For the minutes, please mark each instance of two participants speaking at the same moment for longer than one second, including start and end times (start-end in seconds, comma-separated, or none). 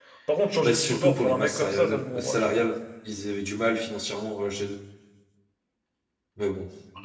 0.6-2.4